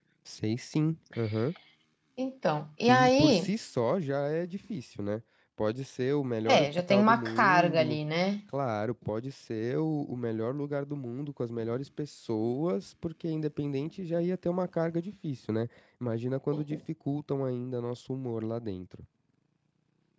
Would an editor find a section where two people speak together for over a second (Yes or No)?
Yes